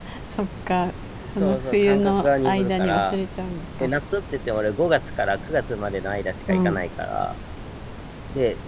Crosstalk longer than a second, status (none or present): present